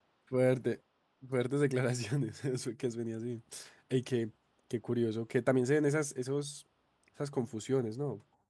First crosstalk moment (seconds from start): none

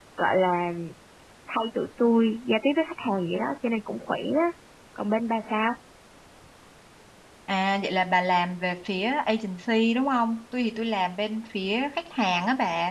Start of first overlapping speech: none

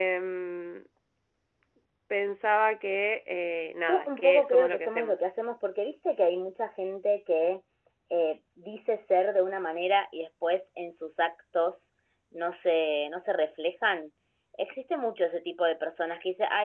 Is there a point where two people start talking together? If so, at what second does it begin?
3.9 s

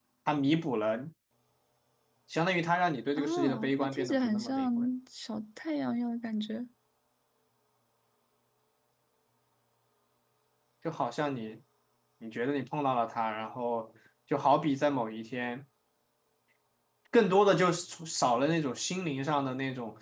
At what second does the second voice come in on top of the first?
3.2 s

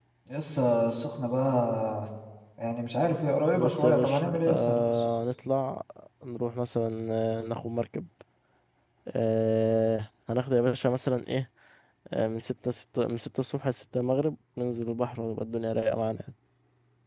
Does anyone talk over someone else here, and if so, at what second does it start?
3.5 s

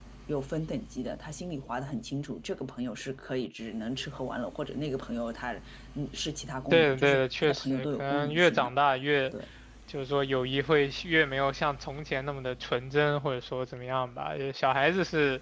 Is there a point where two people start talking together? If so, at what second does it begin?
6.7 s

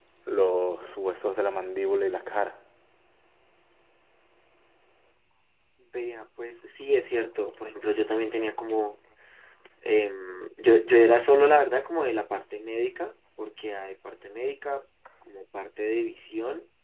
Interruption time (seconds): none

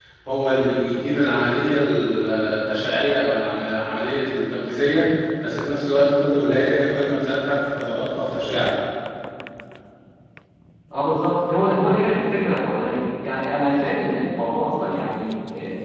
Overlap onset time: none

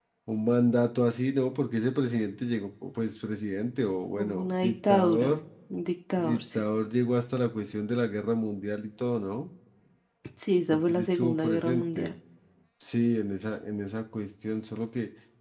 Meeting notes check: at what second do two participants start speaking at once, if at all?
4.2 s

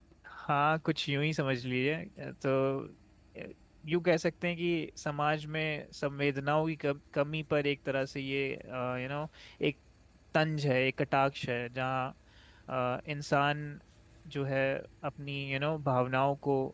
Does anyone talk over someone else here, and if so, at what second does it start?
none

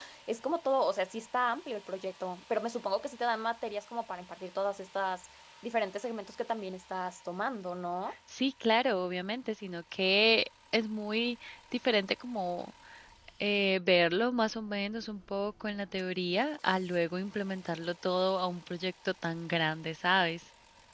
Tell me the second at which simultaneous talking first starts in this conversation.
none

